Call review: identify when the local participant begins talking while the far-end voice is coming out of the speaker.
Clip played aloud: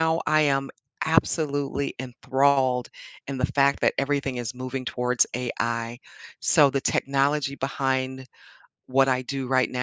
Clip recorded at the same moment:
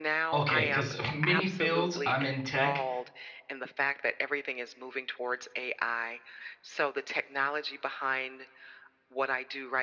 0.3 s

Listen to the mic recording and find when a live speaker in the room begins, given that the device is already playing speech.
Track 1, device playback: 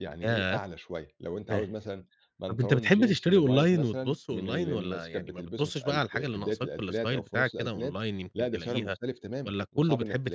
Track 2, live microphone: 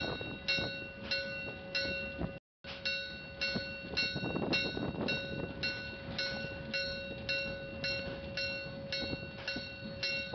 none

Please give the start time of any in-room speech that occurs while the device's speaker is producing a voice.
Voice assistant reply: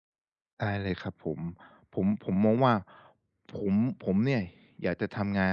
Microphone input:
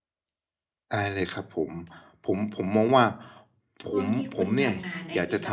3.9 s

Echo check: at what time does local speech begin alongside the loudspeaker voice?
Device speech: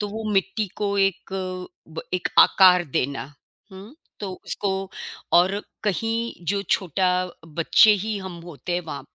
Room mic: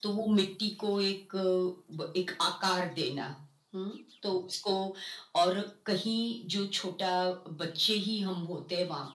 none

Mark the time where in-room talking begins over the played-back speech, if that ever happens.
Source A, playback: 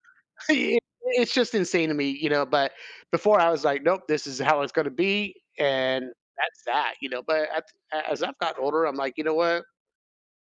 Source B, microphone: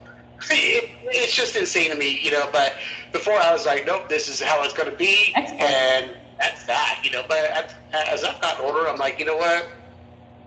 5.3 s

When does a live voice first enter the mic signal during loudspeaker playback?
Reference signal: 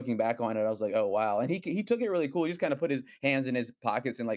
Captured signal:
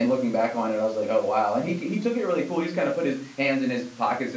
none

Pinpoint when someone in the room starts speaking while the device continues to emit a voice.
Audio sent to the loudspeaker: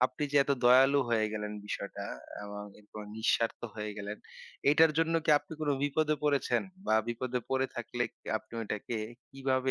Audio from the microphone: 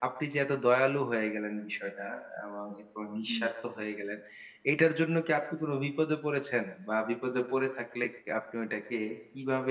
3.3 s

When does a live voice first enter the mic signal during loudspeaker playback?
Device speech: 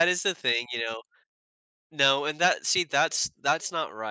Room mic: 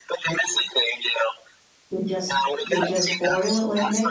1.9 s

